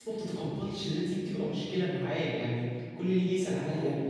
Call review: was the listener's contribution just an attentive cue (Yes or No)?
Yes